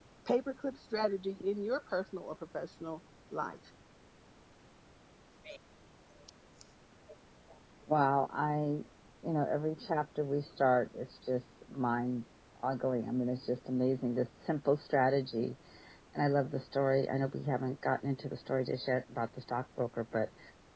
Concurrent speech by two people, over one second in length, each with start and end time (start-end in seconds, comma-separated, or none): none